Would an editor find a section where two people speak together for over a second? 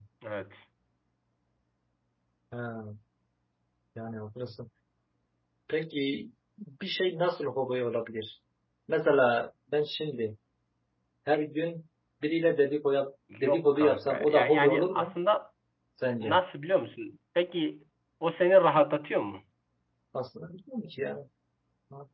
Yes, from 13.3 s

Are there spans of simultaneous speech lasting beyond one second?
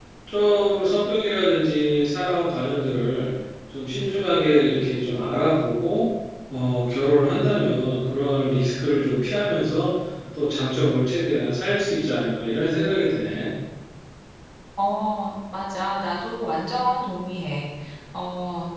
No

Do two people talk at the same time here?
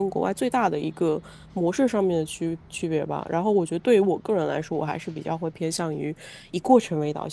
No

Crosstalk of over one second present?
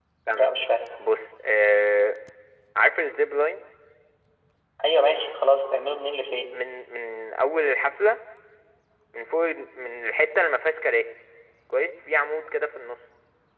No

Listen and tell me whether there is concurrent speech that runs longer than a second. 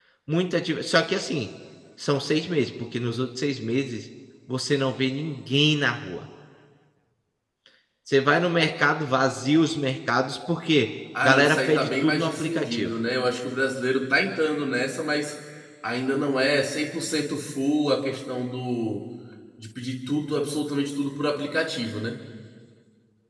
Yes, from 11.2 s

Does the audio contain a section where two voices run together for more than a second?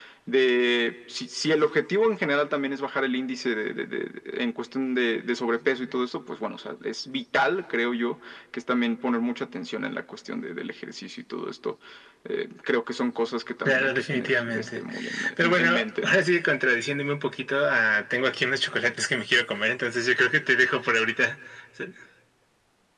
Yes, from 13.7 s

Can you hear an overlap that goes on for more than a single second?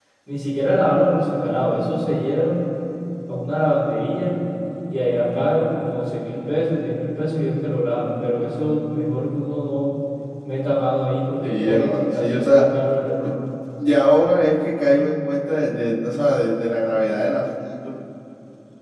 Yes, from 11.4 s

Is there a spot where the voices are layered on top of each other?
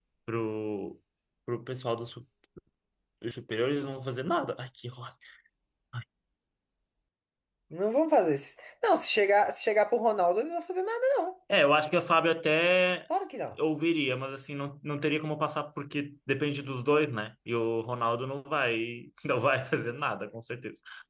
No

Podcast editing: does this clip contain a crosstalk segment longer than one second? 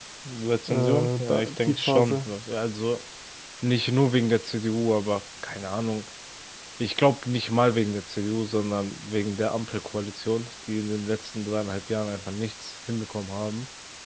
Yes, from 0.7 s

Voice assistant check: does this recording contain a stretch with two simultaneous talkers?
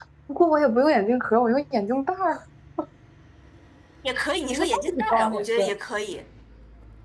Yes, from 4.5 s

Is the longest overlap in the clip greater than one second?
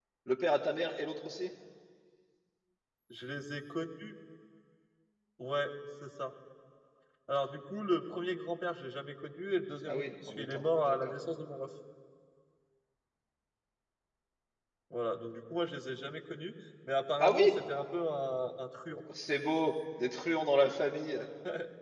Yes, from 9.9 s

